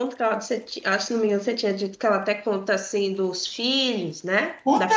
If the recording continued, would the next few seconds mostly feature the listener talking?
Yes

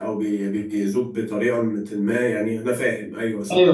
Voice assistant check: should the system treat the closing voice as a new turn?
Yes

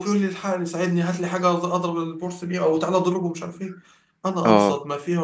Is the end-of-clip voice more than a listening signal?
No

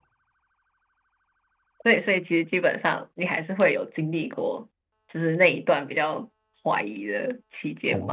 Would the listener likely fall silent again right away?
No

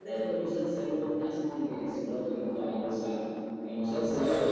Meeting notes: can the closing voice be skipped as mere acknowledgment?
No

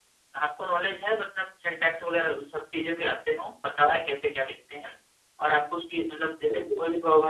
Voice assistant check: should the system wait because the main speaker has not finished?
Yes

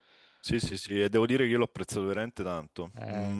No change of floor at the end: Yes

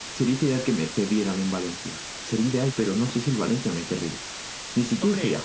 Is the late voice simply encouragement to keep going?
No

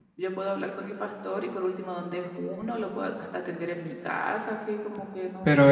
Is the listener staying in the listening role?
No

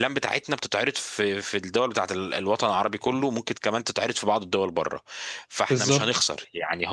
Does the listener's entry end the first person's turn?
No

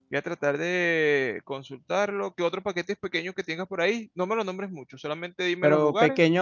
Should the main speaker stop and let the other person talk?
Yes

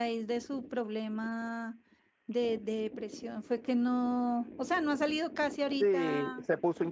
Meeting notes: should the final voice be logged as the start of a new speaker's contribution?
Yes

